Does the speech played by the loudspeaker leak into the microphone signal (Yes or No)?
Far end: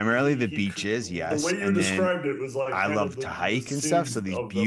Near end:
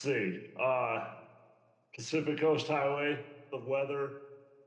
No